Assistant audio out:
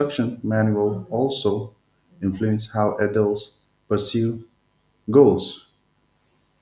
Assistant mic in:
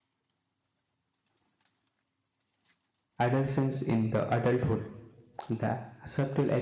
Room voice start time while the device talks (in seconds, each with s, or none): 3.2 s